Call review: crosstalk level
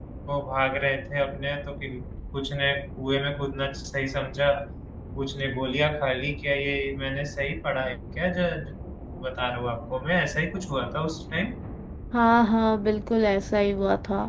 none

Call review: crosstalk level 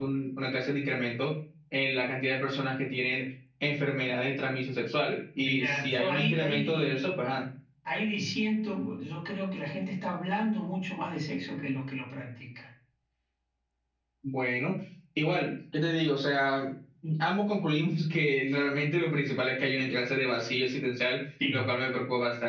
present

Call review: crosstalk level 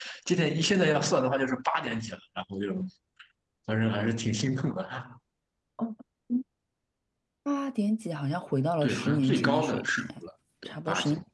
present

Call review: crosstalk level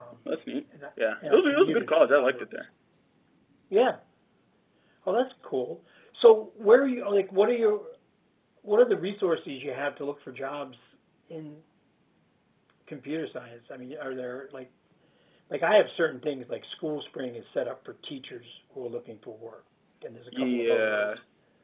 present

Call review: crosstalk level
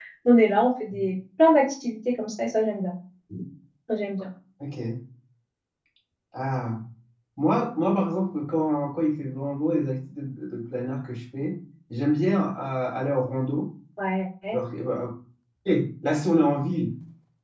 none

